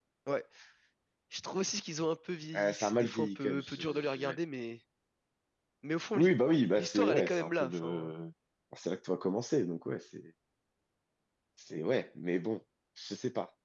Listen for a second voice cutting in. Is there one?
Yes, from 2.5 s

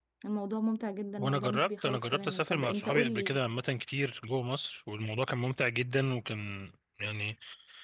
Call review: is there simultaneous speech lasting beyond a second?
Yes, from 1.2 s

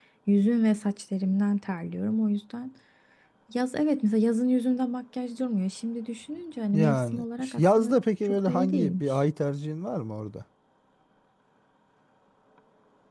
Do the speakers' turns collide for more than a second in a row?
Yes, from 6.7 s

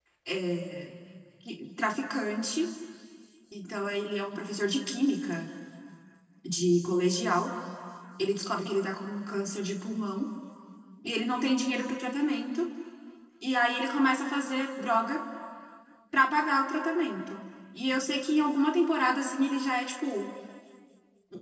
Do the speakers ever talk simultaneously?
No

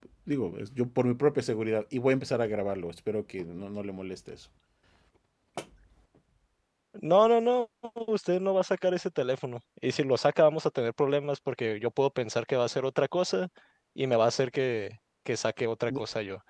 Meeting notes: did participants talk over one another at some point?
No

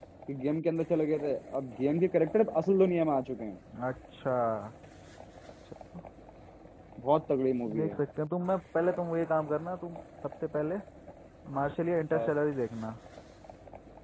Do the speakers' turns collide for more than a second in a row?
No

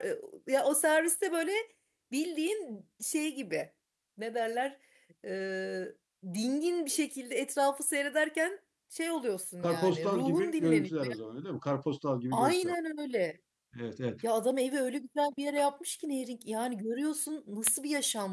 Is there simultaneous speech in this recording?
Yes, from 9.6 s

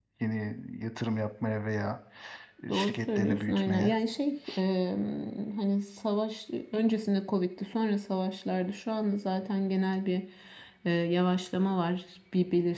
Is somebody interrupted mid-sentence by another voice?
Yes, from 2.7 s

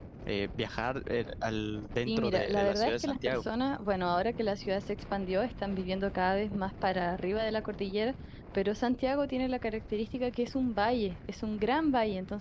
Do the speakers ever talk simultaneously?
Yes, from 2.1 s

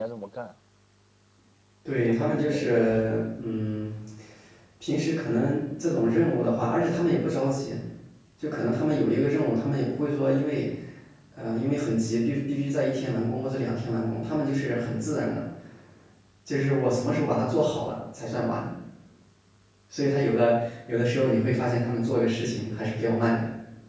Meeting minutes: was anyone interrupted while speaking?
Yes, from 2.0 s

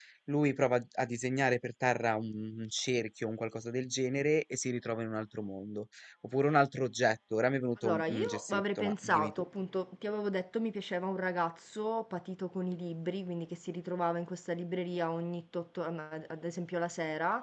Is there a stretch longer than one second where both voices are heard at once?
Yes, from 7.8 s

